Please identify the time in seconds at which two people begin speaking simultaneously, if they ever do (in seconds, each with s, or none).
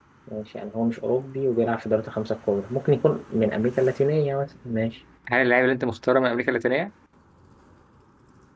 none